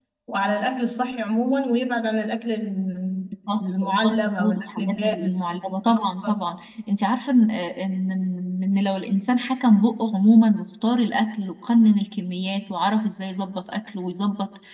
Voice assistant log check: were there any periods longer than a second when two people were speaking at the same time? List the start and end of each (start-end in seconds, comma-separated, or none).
3.6-6.4